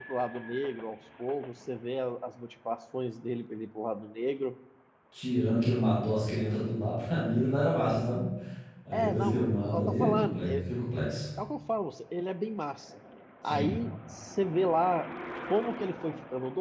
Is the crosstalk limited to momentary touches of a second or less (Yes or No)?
No